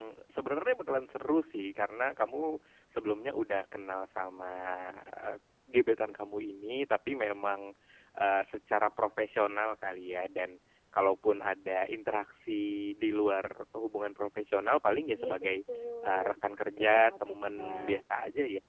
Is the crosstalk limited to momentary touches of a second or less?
No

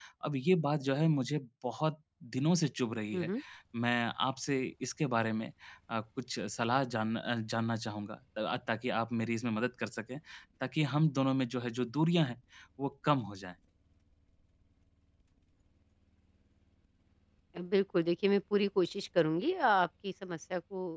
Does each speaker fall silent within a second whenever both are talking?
Yes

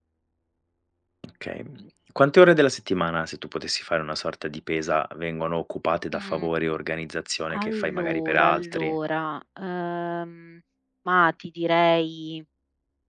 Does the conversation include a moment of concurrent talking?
Yes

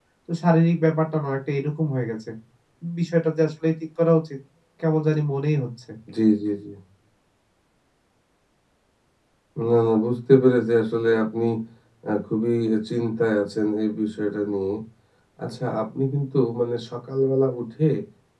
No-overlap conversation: Yes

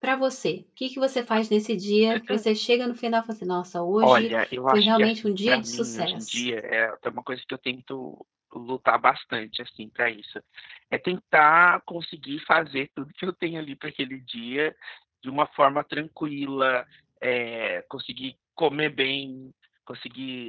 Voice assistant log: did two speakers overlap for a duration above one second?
Yes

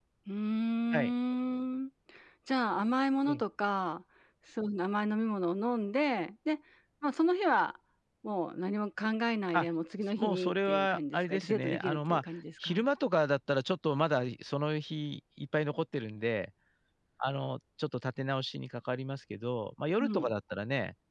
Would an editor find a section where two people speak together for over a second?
Yes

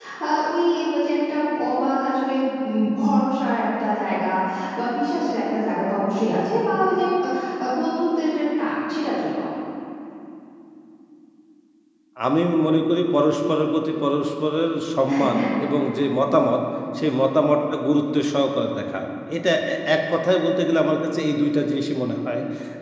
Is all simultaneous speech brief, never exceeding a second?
Yes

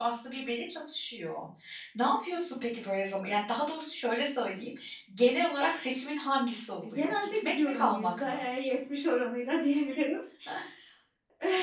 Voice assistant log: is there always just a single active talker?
No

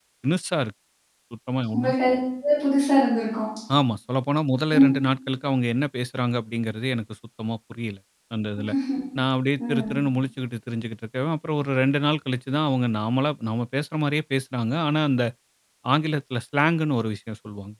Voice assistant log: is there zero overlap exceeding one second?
Yes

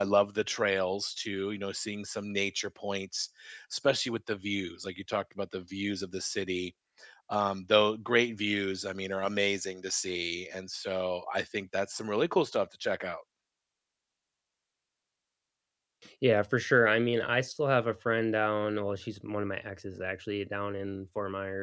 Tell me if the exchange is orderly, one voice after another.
Yes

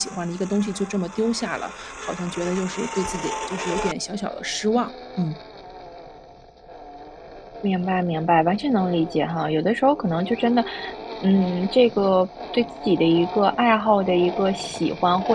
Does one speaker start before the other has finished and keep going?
No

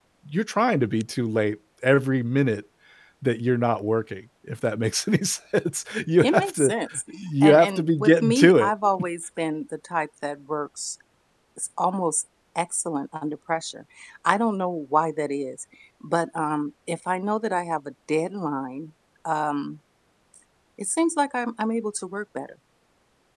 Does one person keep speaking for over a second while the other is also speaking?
Yes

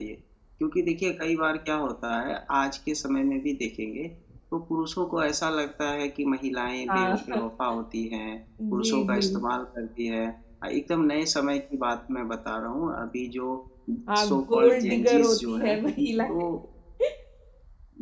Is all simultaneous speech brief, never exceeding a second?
No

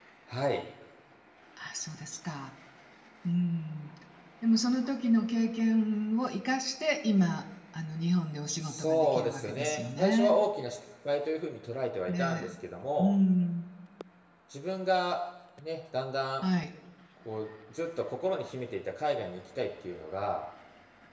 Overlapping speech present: Yes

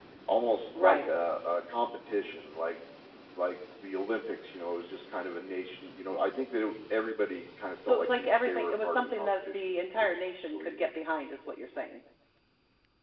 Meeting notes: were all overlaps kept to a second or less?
No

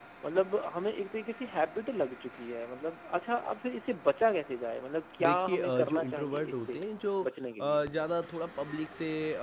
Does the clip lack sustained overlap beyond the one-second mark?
No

